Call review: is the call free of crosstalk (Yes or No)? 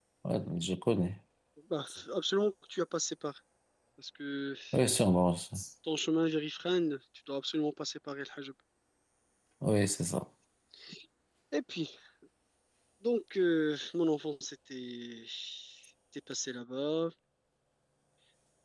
Yes